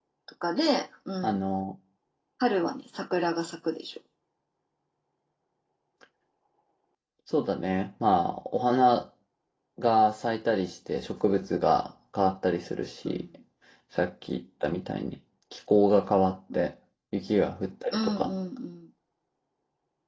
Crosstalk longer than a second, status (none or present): none